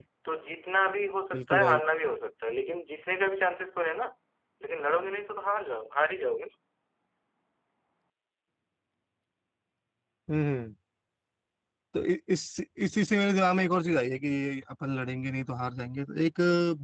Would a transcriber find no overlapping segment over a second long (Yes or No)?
Yes